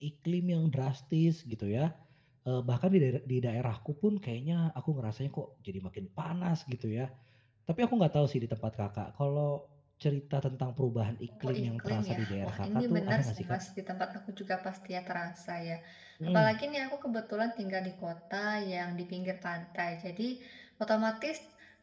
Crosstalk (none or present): present